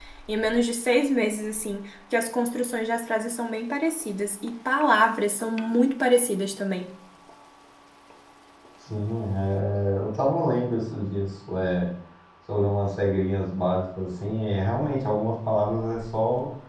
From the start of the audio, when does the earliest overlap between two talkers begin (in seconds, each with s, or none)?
none